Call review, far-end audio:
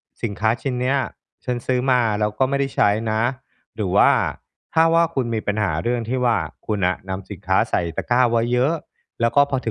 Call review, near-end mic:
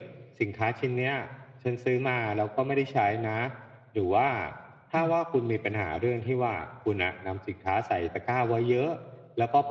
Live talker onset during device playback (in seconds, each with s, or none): 5.0 s